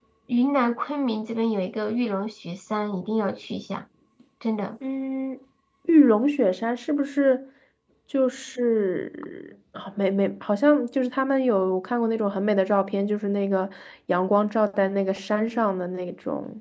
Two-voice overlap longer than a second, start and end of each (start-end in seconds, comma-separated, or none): none